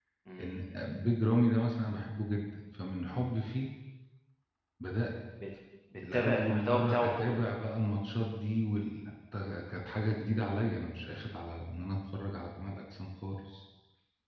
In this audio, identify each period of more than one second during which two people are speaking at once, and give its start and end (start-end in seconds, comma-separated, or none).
6.1-7.4